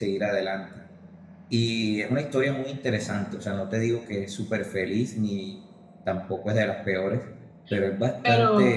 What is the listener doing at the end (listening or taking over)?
listening